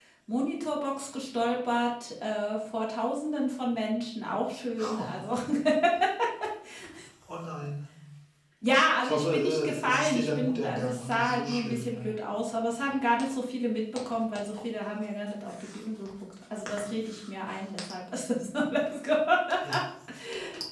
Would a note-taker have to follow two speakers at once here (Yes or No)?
Yes